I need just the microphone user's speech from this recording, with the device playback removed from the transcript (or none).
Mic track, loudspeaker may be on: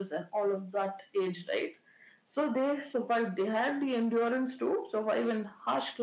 none